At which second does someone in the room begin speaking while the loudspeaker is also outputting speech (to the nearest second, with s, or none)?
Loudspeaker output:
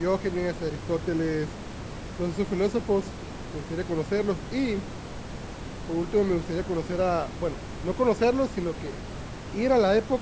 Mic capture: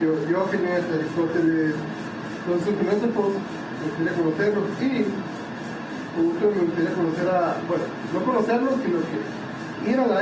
none